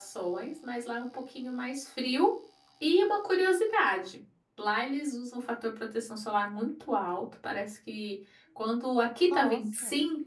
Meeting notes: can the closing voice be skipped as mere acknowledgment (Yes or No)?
Yes